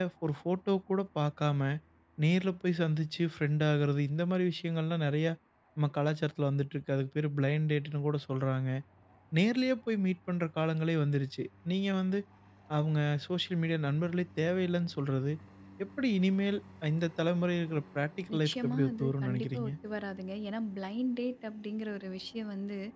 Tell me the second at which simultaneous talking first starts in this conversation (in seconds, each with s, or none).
18.3 s